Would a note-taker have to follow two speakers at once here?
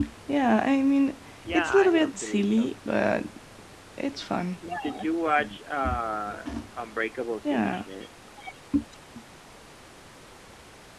Yes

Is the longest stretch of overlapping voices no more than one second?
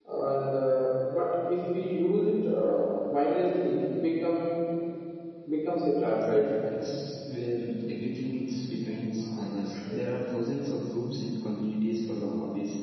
Yes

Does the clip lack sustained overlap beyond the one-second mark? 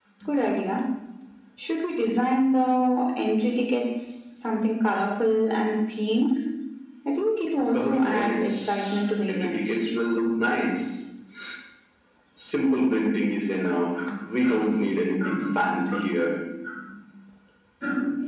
No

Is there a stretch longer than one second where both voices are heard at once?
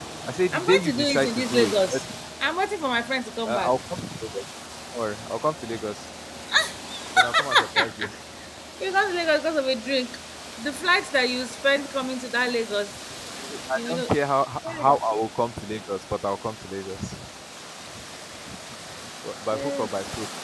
Yes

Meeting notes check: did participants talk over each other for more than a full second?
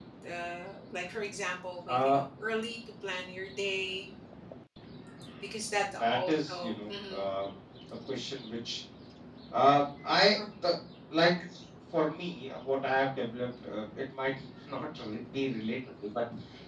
Yes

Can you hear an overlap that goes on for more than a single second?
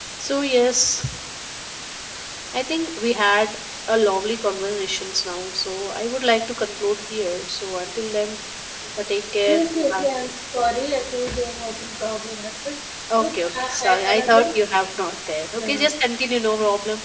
Yes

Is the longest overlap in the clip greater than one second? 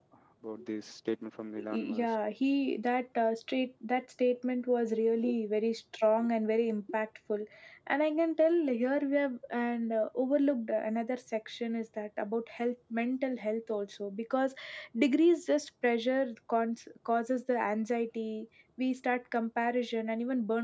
No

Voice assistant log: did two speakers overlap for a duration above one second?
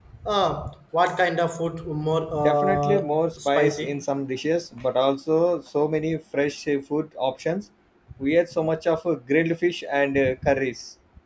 Yes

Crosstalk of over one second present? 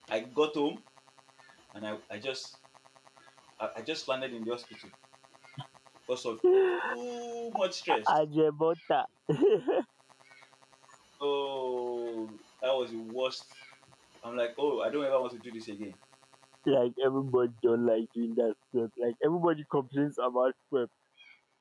No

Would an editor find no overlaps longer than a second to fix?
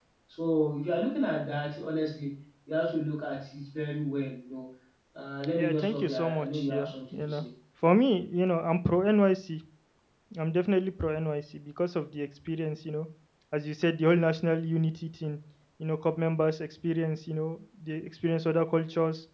No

